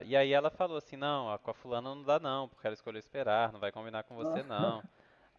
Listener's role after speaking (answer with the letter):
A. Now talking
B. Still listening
B